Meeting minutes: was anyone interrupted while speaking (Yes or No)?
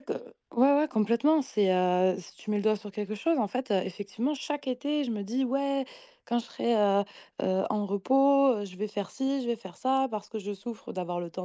No